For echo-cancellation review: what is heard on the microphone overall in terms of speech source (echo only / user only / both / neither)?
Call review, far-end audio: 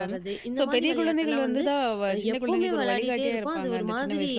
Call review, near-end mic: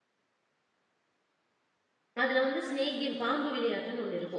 user only